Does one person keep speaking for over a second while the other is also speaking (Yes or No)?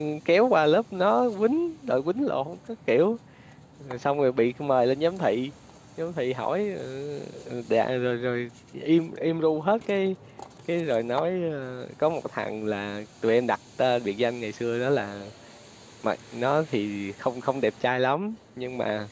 No